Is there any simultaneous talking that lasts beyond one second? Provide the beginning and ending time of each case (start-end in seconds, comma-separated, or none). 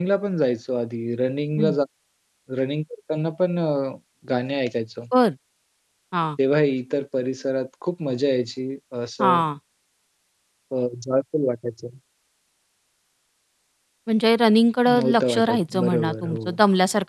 14.9-16.6